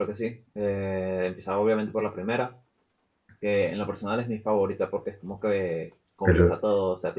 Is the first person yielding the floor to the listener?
No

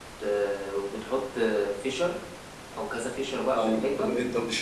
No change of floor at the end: No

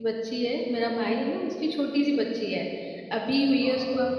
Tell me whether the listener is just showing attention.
Yes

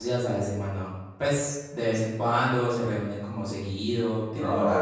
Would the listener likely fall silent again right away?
No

